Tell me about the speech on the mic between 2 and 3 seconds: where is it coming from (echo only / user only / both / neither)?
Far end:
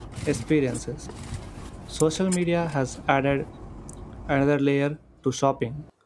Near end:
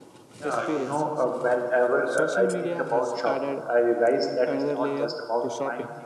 both